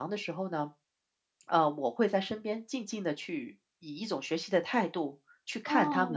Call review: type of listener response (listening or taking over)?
taking over